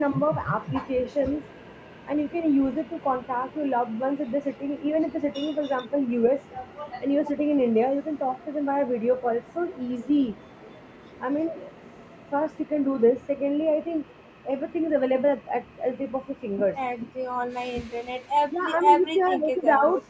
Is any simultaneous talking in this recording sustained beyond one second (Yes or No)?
Yes